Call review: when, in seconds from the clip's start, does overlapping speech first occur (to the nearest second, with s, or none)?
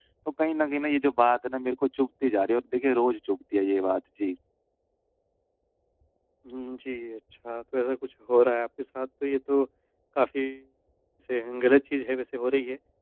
none